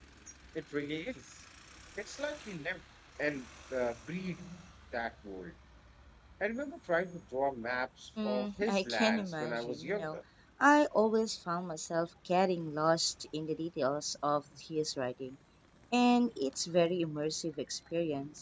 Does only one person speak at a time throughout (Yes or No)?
No